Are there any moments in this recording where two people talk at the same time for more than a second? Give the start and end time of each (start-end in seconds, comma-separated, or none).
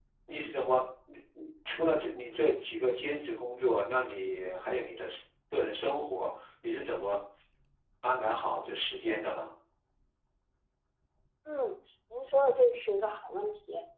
none